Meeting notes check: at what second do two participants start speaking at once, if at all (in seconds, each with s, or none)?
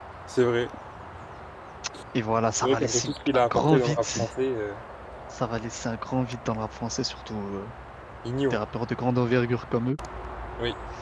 2.6 s